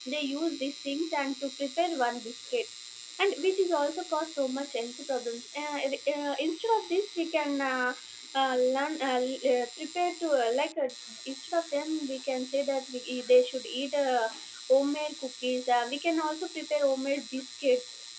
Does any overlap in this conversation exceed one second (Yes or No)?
No